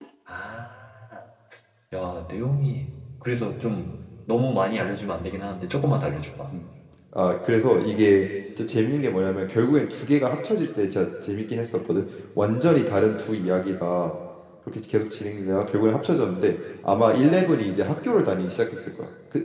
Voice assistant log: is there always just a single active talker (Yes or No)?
Yes